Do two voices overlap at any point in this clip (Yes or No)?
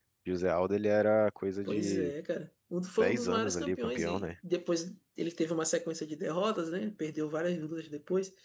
Yes